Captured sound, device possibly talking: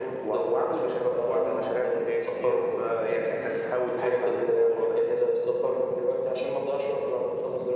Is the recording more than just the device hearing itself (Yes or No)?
No